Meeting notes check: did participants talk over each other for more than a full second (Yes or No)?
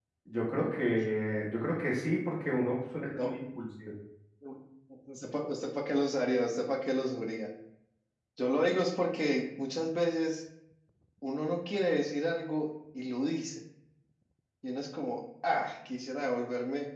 No